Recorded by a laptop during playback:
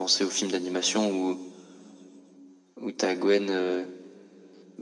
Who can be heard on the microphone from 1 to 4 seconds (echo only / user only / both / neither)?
echo only